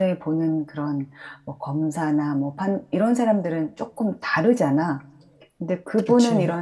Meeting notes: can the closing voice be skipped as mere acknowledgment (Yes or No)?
Yes